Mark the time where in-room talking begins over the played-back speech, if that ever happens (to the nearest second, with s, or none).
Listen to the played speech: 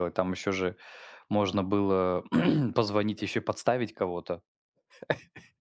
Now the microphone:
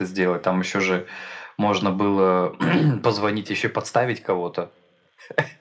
none